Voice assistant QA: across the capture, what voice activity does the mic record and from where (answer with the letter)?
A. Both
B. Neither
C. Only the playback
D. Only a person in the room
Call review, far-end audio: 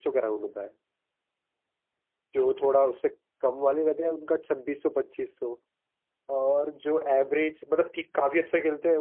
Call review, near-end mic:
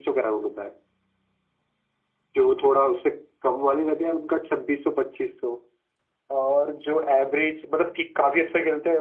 C